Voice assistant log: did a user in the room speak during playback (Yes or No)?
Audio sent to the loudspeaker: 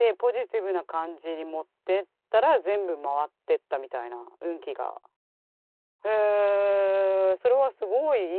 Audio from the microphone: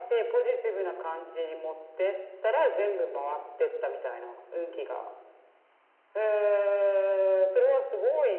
No